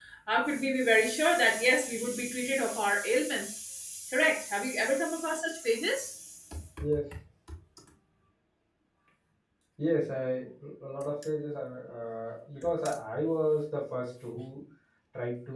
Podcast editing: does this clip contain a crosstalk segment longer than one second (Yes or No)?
No